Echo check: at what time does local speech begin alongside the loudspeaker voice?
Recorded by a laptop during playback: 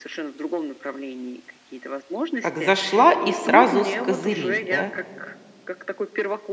2.4 s

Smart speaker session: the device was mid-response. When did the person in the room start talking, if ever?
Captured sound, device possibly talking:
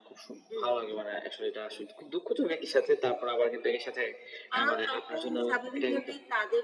none

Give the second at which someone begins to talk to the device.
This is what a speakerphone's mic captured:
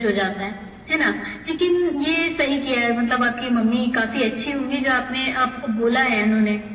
none

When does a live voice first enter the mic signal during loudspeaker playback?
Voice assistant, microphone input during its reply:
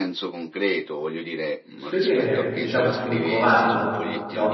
1.7 s

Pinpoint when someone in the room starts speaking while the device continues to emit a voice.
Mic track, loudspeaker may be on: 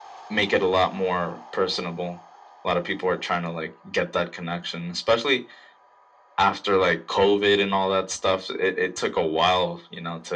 none

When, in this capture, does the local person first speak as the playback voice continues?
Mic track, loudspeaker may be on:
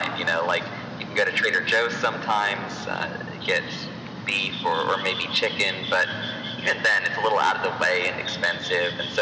none

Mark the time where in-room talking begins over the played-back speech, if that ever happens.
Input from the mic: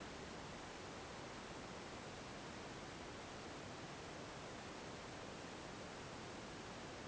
none

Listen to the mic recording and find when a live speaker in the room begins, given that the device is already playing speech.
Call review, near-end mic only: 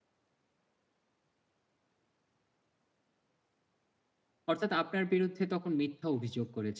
4.5 s

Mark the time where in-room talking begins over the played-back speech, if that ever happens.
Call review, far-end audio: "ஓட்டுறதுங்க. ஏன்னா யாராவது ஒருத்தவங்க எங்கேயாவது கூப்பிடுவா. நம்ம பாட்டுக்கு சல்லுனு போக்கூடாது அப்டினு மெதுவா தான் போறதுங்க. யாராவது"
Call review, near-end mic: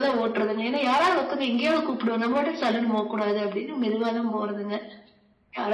none

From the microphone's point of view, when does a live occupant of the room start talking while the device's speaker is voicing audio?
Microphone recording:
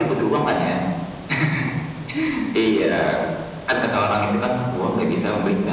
none

